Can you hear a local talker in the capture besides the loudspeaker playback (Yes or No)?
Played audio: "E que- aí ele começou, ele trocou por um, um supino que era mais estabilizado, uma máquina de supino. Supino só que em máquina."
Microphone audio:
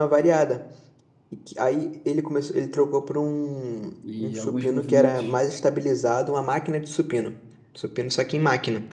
Yes